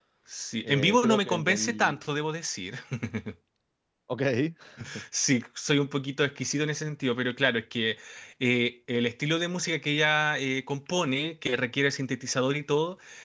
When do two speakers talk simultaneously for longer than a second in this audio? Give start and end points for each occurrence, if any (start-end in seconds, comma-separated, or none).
0.6-2.0